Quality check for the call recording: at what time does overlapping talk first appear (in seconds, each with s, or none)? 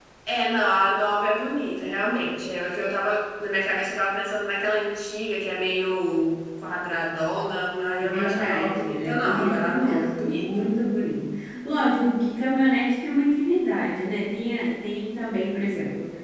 8.0 s